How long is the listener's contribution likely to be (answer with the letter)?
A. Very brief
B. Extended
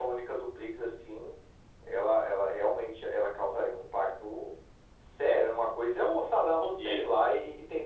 A